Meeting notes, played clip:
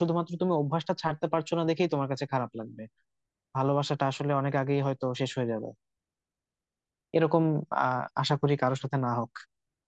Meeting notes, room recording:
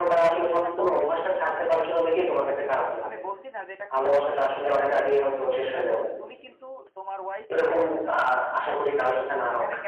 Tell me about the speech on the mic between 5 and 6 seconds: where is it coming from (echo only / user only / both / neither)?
both